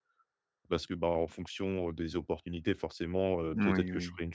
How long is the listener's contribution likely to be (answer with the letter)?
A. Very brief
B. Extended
A